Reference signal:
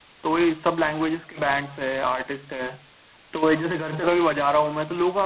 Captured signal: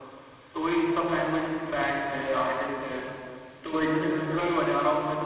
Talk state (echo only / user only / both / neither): echo only